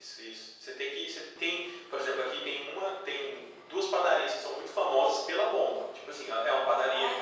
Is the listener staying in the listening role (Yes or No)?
Yes